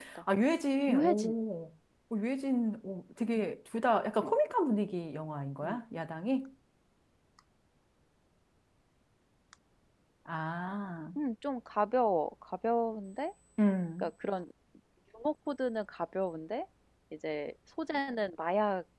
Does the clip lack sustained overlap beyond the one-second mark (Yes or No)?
Yes